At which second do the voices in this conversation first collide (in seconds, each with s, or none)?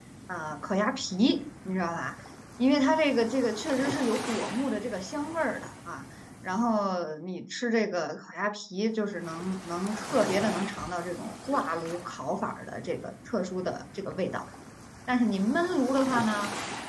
none